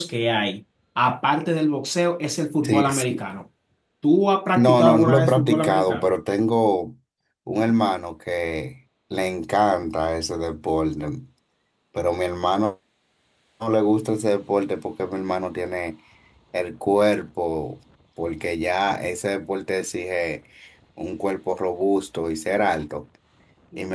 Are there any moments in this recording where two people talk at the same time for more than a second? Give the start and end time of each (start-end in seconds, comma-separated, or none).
4.6-6.1